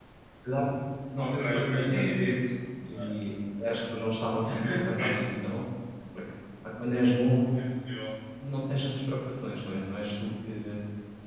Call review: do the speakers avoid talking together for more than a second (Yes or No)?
No